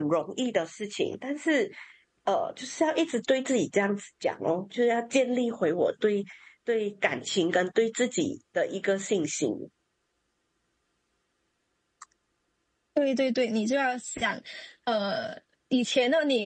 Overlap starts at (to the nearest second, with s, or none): none